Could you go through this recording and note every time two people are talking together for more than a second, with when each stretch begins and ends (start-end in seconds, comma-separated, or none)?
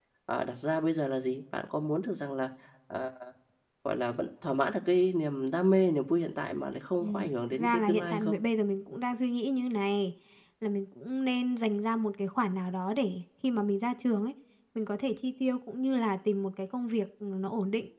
7.0-8.4